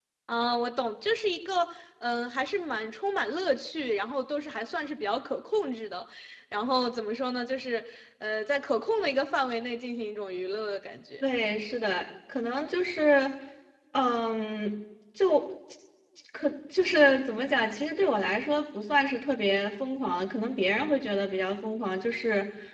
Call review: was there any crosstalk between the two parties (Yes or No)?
No